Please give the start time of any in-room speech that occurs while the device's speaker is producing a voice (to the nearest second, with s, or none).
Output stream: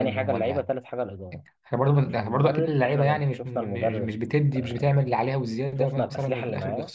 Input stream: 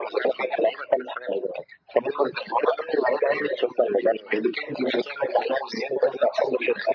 none